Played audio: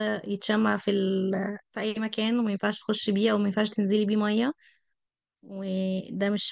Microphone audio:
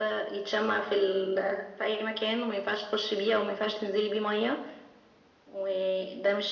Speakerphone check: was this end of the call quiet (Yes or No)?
Yes